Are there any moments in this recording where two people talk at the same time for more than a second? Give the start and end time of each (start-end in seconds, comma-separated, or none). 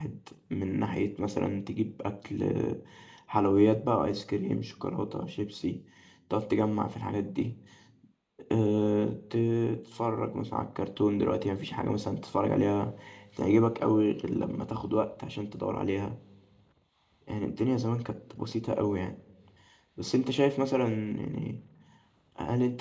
none